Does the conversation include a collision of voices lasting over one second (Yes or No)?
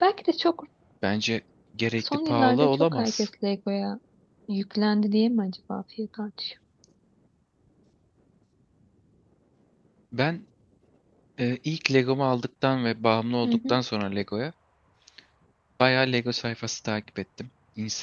Yes